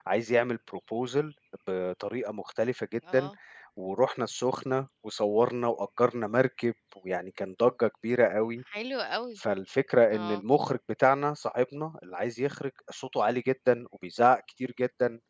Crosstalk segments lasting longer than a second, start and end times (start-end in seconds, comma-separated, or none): none